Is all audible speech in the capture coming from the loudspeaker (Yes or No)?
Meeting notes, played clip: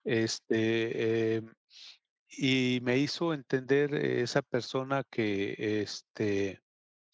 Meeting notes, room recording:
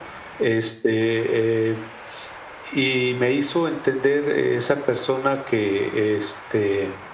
Yes